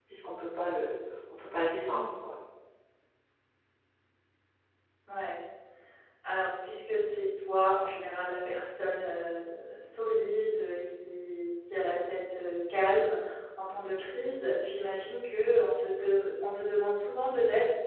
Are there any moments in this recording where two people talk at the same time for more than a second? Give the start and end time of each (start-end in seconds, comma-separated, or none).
none